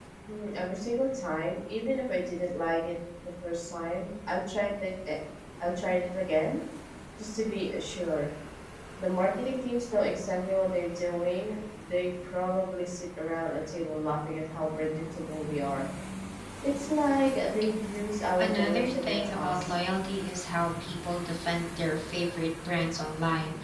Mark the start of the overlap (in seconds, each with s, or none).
18.4 s